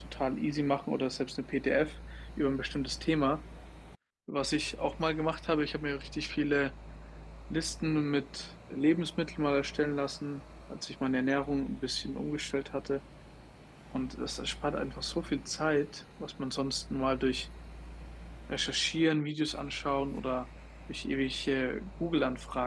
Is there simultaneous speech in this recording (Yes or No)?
No